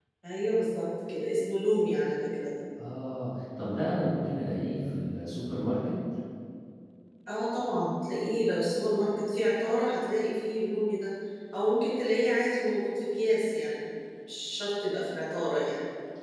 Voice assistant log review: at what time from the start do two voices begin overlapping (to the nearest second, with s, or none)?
none